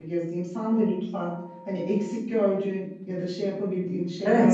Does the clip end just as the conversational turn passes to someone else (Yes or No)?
Yes